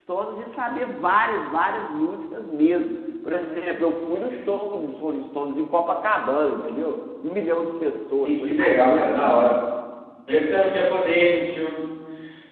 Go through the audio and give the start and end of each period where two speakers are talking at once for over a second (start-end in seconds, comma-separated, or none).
8.1-9.6